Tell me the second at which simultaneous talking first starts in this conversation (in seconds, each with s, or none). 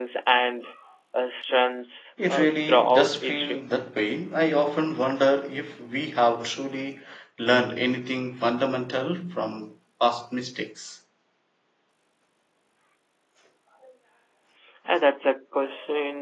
2.2 s